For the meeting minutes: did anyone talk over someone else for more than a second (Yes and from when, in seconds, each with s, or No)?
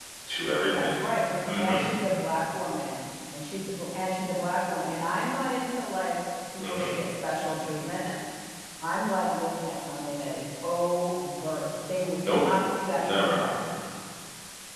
No